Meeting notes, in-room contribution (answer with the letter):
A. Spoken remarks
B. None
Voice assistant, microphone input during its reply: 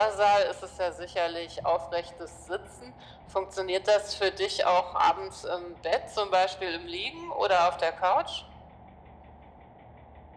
B